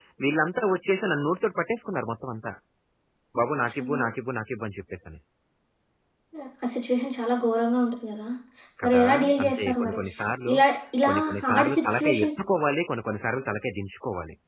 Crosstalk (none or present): present